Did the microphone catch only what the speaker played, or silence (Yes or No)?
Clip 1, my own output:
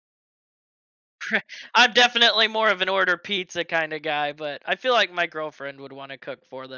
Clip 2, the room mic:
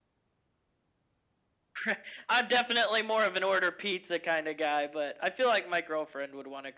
Yes